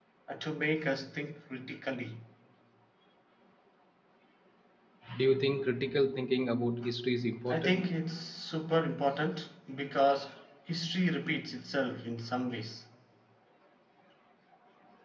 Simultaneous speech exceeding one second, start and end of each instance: none

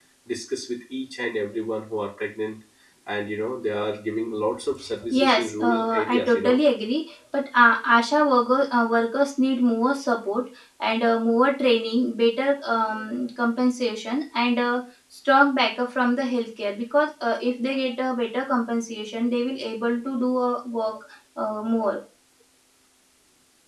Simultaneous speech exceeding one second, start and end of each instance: 5.1-6.6

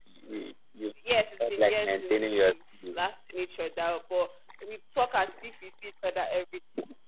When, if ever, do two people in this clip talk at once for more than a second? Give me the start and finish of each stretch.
1.4-3.0

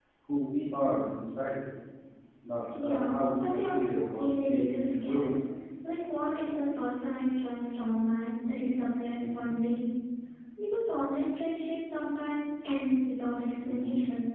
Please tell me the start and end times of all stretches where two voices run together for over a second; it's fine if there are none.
2.8-5.2

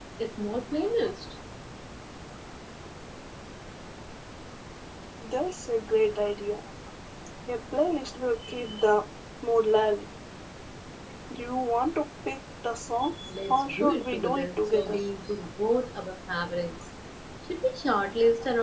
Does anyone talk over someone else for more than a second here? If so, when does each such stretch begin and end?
13.5-15.0

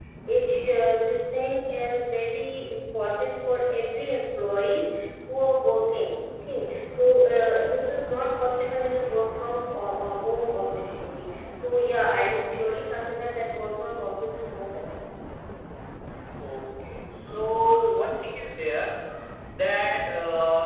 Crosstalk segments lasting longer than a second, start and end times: none

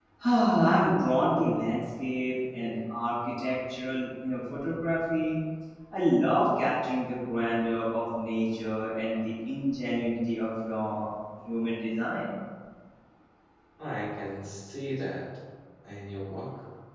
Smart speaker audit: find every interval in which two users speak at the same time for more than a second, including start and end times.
none

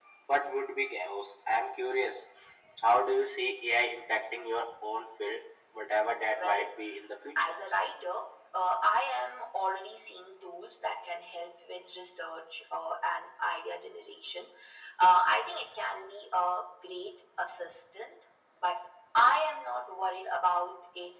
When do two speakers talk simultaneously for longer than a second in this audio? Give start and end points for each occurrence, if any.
none

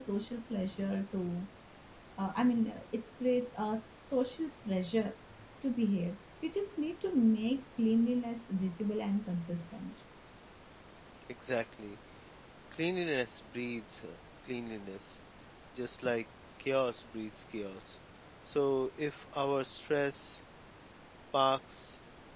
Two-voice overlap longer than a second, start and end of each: none

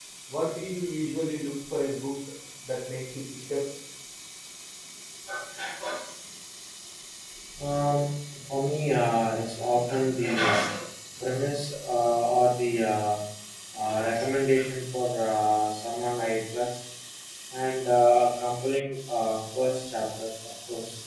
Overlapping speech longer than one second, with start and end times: none

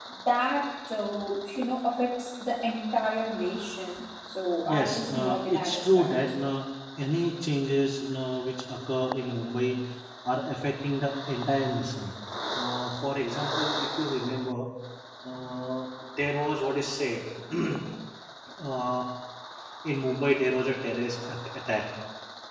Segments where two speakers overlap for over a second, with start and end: 4.6-6.2

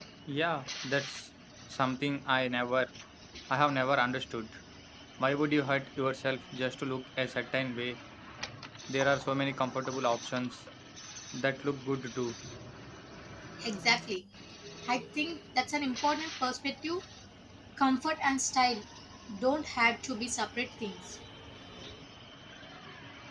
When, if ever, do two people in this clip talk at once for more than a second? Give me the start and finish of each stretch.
none

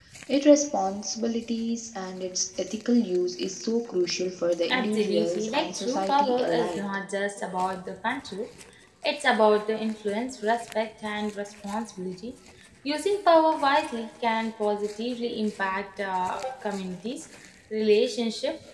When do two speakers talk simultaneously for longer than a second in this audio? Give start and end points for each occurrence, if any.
4.7-6.9

